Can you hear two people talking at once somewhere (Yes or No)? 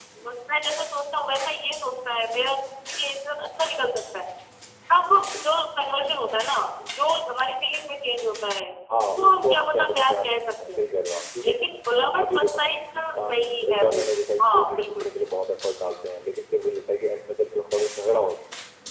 Yes